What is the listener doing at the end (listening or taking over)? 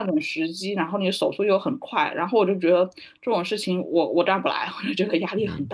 taking over